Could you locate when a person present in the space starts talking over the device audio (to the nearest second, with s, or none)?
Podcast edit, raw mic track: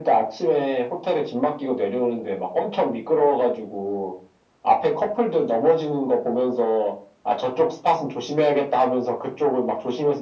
none